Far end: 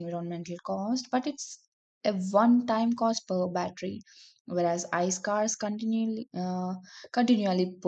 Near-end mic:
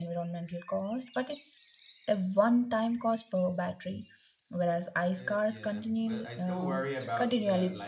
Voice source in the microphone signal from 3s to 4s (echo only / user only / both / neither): echo only